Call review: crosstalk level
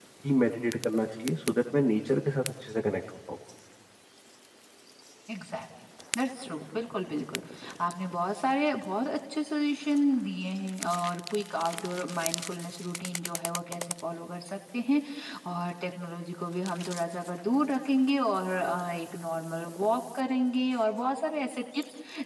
none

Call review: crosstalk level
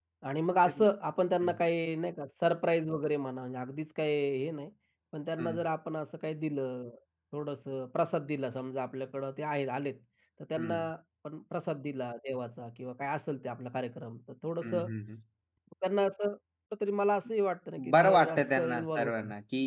present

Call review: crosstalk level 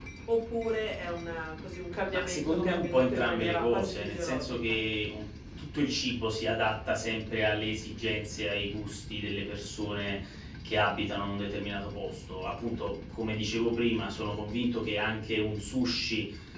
present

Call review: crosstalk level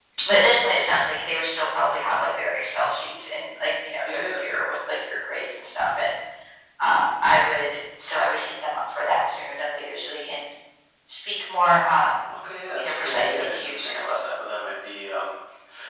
present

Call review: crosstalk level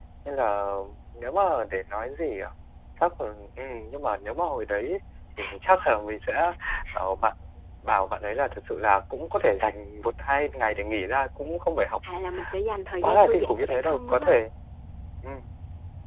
present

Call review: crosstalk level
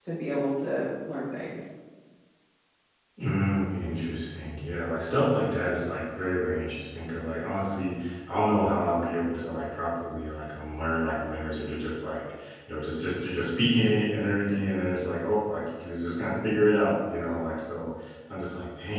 none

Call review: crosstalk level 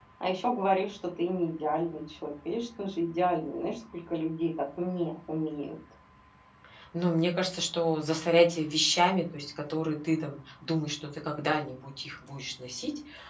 none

